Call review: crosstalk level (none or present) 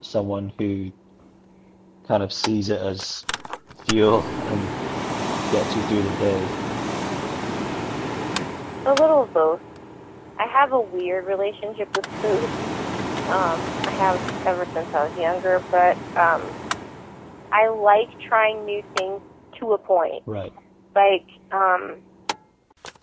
none